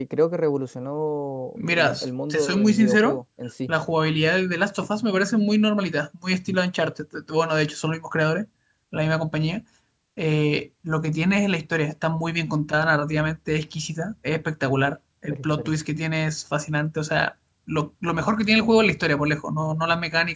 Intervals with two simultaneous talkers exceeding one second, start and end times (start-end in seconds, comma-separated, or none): 1.6-3.2